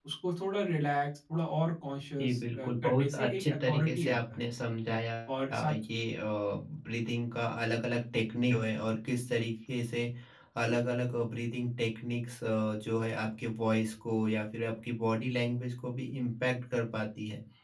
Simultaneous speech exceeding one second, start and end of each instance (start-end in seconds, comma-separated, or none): 2.2-4.4